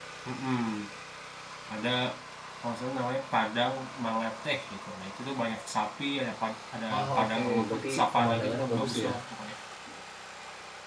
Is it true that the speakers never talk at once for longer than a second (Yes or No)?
No